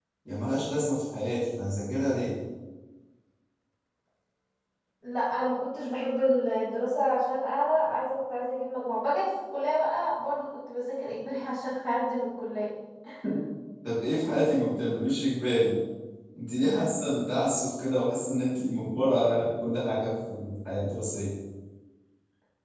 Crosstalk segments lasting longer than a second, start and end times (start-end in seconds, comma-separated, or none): none